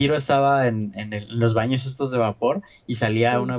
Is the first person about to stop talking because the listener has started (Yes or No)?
No